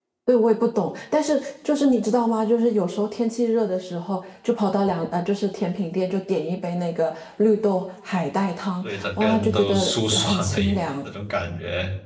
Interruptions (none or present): present